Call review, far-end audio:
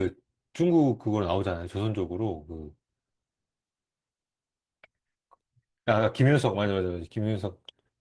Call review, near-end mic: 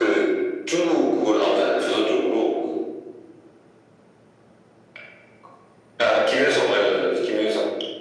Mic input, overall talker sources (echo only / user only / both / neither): echo only